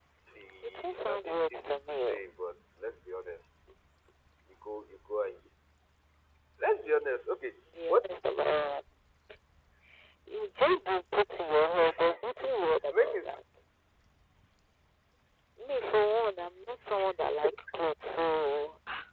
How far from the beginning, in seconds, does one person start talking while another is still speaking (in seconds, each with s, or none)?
0.6 s